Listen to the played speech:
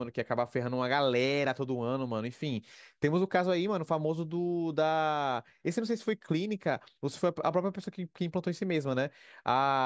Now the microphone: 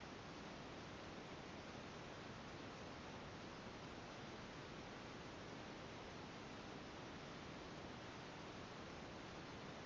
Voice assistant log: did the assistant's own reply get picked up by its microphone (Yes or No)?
No